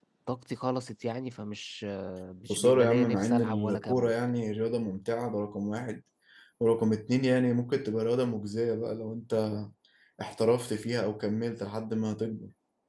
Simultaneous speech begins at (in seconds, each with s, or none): 2.5 s